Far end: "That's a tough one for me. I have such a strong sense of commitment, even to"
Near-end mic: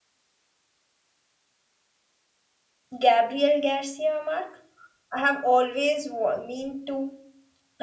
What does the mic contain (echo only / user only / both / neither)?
user only